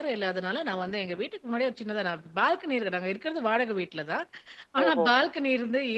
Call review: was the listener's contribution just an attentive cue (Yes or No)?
Yes